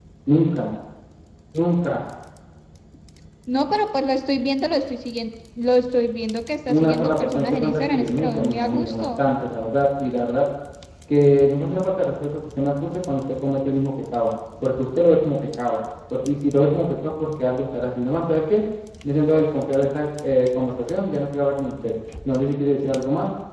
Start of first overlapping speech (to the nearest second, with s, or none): 7 s